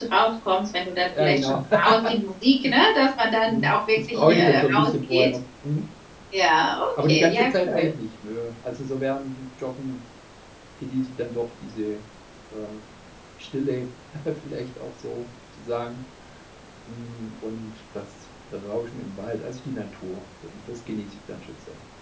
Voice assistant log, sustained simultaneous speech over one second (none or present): present